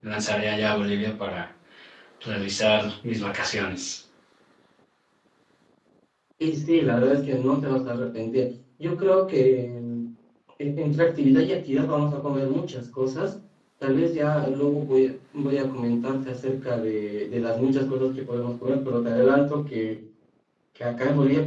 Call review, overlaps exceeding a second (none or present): none